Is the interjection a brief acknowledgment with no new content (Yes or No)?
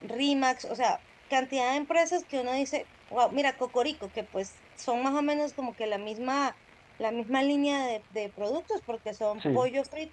Yes